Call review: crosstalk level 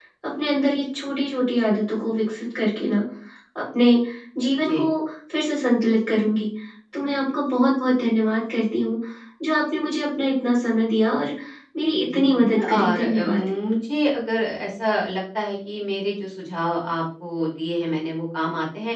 present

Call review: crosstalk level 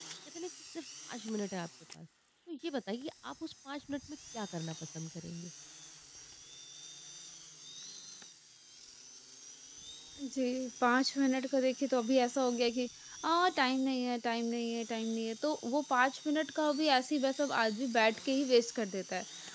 none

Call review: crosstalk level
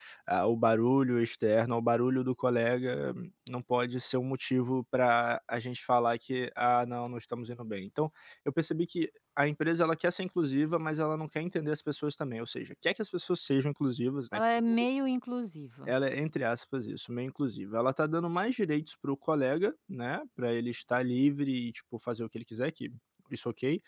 none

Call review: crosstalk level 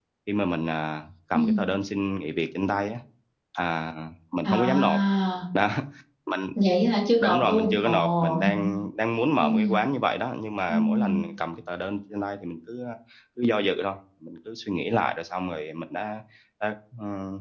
present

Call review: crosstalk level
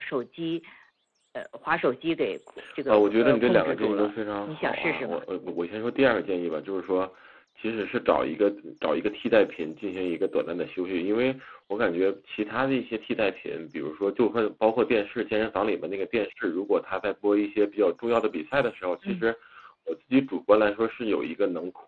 present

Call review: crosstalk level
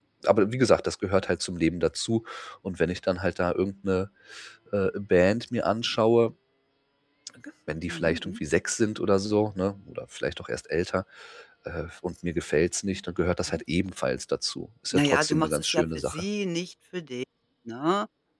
present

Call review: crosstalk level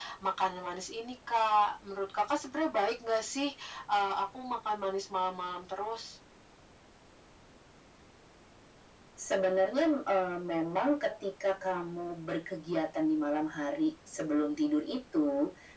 none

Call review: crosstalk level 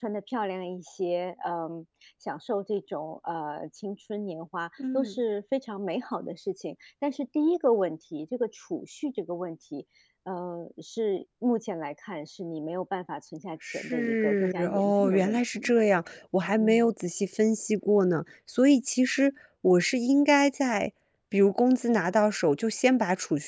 present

